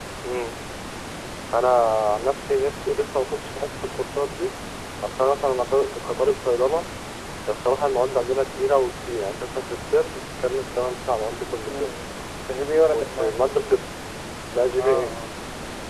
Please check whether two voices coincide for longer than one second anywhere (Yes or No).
No